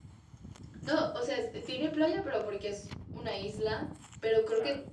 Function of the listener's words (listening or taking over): listening